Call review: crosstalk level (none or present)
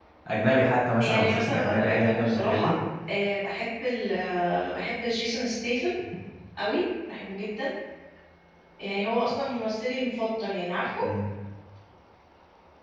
present